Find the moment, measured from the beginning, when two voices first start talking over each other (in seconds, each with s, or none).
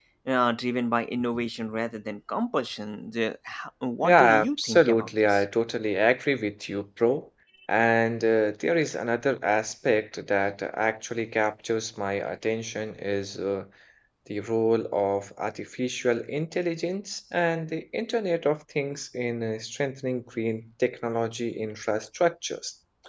4.0 s